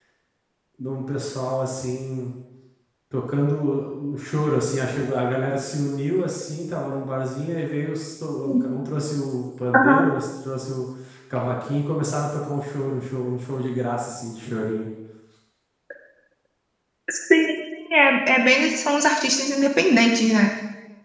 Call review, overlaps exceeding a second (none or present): none